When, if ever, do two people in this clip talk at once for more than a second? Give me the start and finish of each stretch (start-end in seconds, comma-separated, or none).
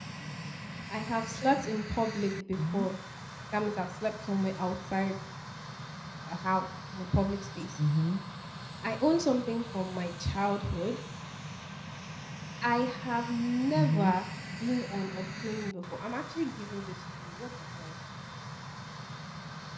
none